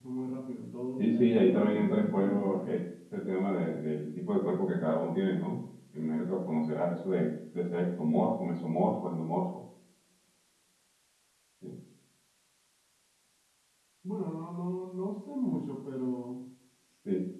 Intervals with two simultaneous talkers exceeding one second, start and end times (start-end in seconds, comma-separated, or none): 1.0-2.8